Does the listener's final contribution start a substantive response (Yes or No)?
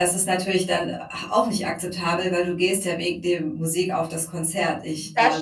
Yes